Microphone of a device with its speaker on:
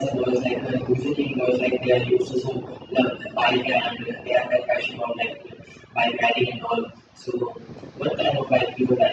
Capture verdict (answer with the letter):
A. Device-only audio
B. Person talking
A